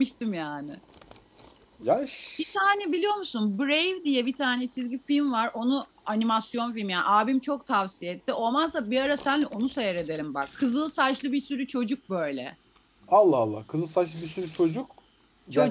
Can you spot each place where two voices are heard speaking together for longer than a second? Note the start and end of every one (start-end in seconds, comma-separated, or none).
none